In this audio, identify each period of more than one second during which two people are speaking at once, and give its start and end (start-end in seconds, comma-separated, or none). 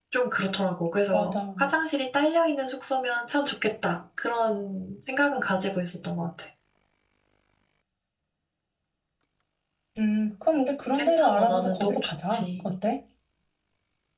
11.0-12.6